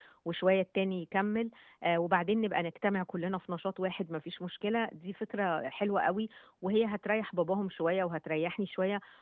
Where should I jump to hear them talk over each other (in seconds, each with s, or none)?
none